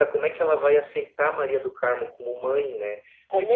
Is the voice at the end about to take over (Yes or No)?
No